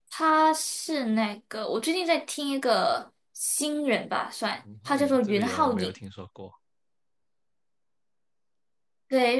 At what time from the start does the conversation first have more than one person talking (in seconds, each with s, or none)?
4.6 s